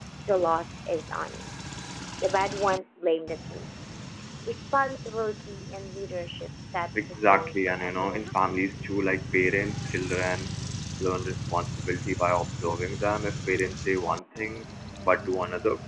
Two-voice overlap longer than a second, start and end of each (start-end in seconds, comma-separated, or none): 7.0-8.6